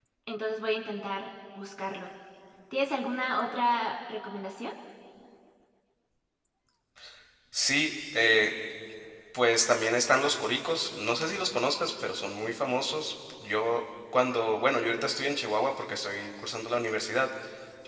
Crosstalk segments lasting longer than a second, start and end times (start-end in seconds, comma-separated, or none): none